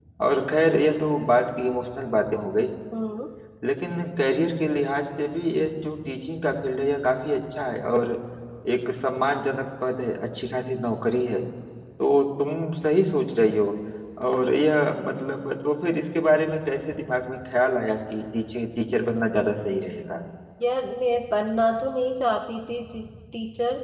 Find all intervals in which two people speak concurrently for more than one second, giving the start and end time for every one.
none

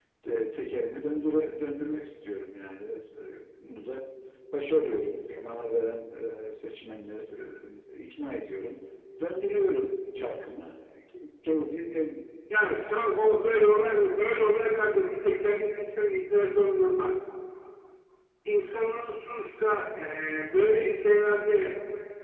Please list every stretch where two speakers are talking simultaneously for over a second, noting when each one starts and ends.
none

